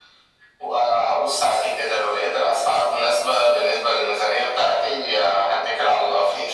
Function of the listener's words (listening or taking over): taking over